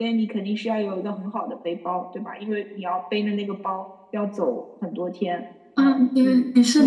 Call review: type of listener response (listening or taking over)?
taking over